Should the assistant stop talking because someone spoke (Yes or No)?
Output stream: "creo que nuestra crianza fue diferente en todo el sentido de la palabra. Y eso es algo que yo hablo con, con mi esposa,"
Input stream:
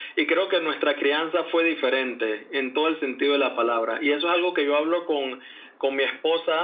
No